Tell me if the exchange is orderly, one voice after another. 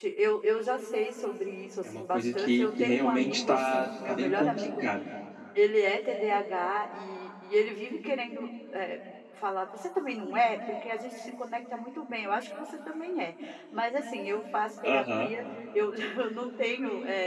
No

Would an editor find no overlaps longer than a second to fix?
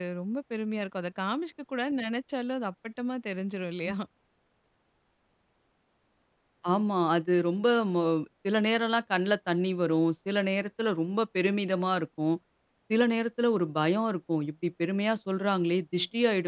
Yes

